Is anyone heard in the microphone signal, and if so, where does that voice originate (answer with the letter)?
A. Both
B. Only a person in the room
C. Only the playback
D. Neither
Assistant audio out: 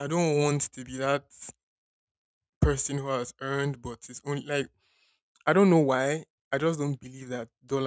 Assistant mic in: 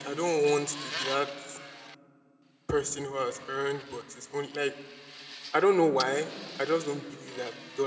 C